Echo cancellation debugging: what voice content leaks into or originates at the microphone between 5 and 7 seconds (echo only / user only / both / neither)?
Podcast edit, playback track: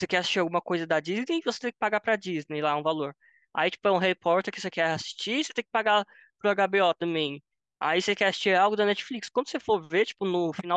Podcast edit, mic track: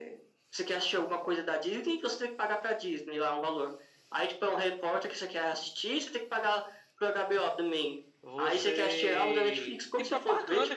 echo only